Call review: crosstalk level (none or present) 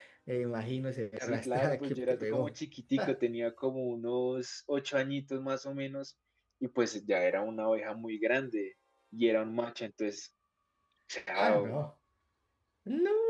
present